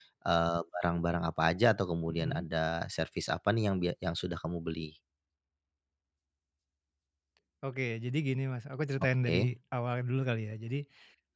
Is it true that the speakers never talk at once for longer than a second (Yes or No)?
Yes